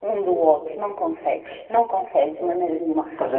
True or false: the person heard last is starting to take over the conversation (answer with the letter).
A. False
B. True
B